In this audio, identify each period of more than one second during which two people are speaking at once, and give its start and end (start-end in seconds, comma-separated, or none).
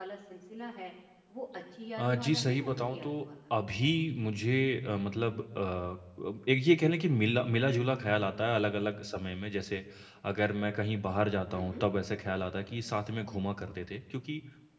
2.0-3.2